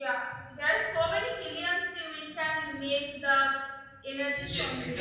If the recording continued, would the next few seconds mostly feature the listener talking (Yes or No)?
Yes